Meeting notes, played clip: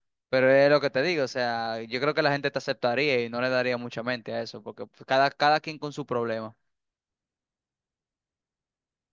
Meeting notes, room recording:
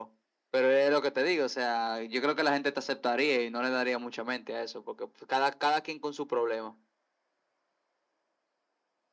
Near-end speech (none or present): none